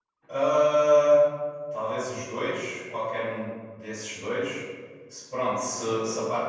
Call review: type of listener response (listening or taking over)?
listening